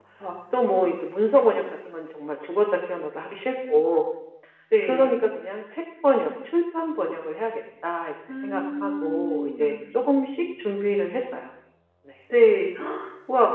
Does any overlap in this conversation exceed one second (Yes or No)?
Yes